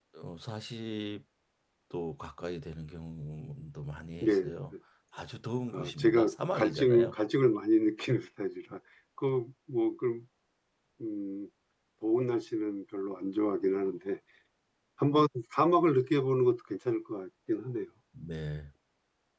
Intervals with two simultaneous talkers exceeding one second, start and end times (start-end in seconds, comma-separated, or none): 5.7-7.1